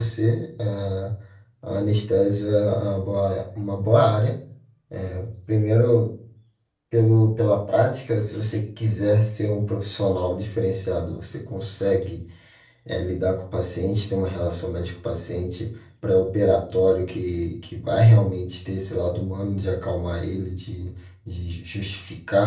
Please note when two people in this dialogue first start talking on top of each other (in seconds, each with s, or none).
none